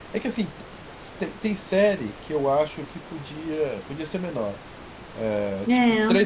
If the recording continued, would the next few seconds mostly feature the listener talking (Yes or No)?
No